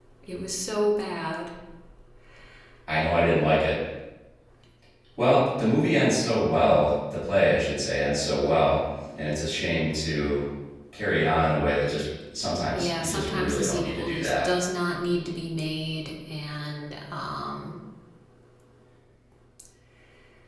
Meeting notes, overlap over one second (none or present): present